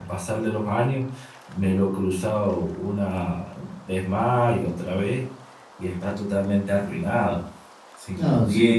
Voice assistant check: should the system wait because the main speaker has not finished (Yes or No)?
No